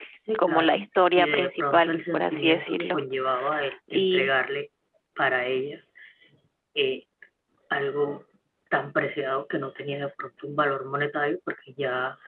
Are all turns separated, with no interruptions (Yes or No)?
No